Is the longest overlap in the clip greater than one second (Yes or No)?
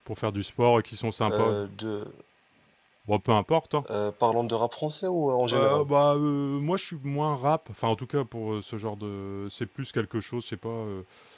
No